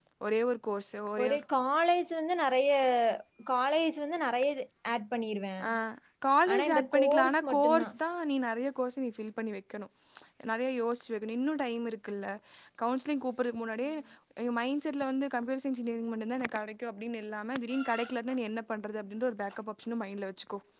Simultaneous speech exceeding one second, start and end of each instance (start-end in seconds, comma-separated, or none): 6.5-7.9